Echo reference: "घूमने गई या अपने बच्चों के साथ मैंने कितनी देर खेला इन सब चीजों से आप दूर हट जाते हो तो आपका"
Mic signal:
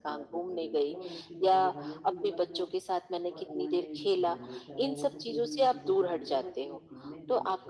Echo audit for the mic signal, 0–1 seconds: both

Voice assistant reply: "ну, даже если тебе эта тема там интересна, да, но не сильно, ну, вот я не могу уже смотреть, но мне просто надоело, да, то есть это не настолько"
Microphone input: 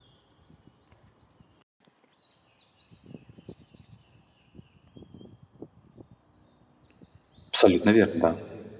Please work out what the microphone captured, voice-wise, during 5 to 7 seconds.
neither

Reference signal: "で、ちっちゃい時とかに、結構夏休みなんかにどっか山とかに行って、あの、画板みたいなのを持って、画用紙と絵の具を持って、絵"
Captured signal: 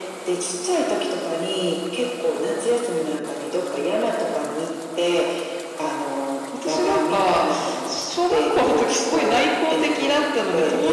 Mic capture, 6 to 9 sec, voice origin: both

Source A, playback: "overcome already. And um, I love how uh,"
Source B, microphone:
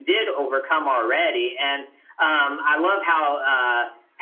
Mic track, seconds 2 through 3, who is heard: echo only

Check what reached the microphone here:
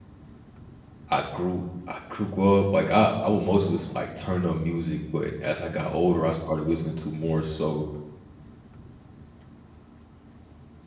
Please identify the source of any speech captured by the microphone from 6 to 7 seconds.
user only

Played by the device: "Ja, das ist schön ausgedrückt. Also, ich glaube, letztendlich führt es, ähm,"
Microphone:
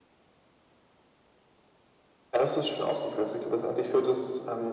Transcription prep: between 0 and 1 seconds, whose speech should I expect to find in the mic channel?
neither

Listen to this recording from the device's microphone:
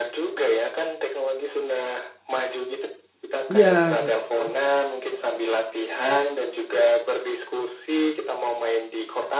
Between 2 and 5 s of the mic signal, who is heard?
both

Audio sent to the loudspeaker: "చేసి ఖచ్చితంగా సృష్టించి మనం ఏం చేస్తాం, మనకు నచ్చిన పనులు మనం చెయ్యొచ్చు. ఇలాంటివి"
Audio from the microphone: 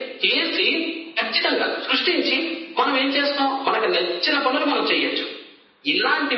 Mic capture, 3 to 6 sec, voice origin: echo only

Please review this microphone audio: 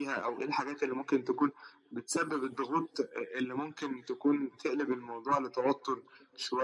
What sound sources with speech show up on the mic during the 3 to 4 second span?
echo only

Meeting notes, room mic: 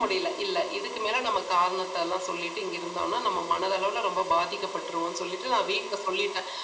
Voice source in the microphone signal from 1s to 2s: echo only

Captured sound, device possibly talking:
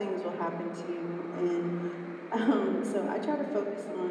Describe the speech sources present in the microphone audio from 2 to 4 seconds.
echo only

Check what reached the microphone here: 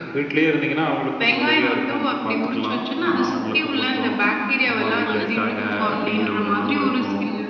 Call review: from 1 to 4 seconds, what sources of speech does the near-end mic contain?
echo only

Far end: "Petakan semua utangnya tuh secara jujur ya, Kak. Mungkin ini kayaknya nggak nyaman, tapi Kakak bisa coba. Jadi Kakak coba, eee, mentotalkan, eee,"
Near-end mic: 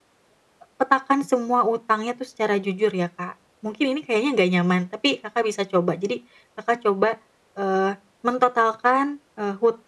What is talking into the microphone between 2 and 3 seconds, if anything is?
echo only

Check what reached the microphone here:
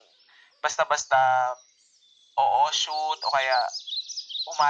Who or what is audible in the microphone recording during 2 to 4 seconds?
echo only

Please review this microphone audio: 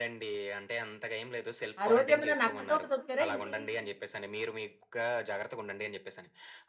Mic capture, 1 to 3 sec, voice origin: both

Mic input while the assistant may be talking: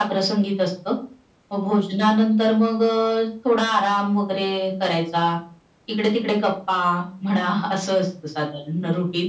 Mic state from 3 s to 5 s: echo only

